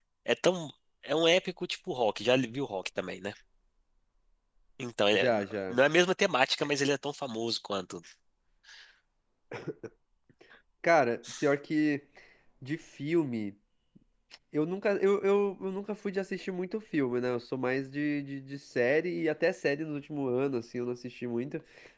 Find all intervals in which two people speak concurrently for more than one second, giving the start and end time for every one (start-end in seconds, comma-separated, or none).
none